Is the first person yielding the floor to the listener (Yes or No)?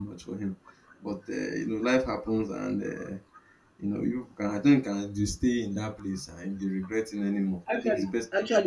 Yes